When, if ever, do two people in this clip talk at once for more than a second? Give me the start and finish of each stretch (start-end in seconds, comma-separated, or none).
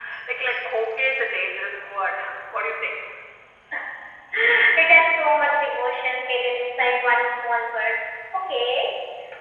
none